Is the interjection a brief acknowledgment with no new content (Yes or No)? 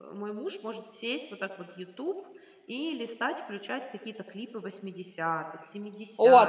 No